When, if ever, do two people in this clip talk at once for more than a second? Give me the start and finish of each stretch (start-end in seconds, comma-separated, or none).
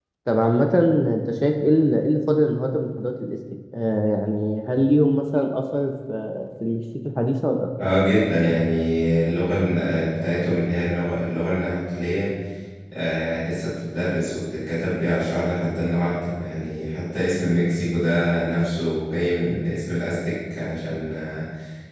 none